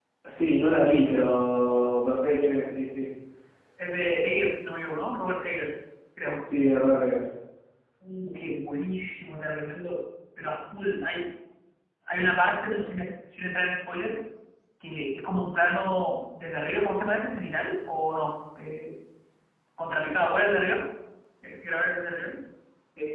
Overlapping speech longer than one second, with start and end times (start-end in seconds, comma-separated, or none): none